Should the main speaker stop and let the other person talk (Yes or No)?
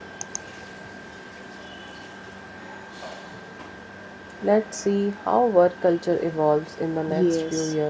Yes